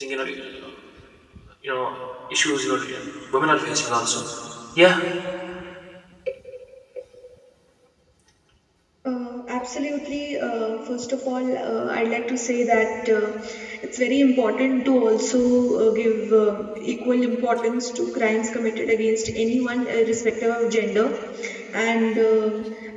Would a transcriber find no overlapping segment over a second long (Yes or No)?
Yes